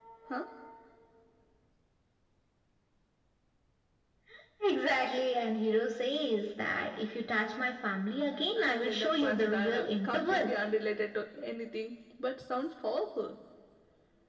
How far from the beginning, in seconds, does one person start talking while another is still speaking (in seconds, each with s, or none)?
8.6 s